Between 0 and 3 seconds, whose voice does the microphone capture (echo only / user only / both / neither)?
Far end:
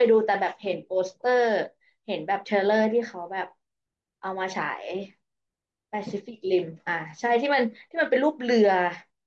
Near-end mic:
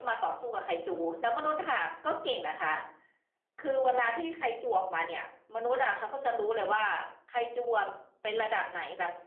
user only